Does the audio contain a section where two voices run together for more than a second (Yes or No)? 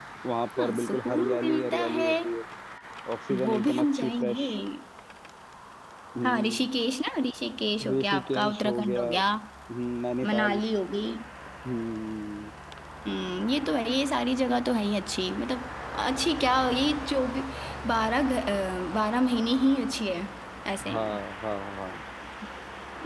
Yes